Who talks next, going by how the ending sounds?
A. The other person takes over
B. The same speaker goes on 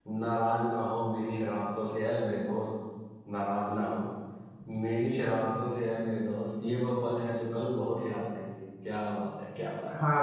A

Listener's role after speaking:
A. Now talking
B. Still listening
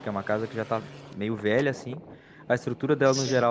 B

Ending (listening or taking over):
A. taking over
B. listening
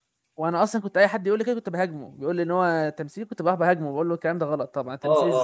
A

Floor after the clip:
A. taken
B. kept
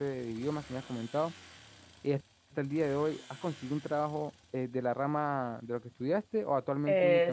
A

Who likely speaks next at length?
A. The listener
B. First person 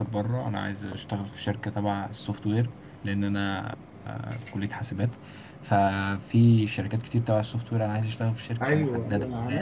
A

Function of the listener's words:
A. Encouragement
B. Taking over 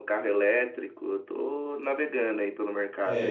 B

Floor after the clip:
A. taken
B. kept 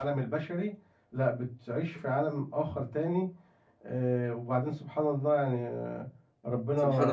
B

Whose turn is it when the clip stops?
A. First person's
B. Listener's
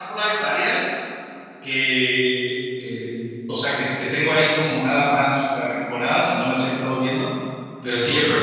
A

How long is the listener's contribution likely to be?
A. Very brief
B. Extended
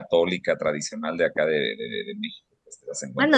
B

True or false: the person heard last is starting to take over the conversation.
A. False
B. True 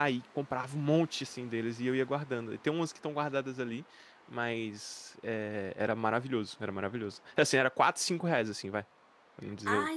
B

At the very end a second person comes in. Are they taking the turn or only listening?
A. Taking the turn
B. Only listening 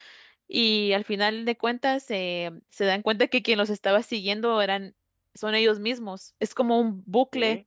B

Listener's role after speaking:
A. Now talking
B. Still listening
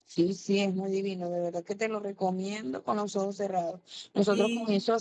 B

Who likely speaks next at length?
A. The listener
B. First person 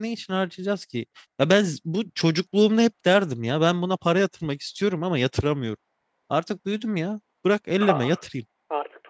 A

